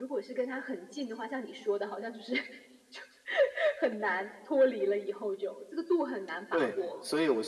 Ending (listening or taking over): taking over